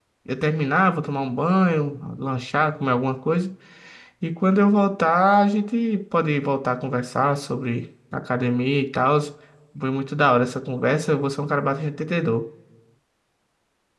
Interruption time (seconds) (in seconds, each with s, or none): none